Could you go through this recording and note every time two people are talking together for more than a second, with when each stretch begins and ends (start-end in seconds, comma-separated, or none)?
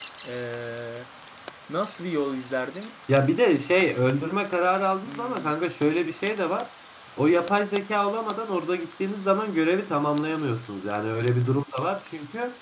none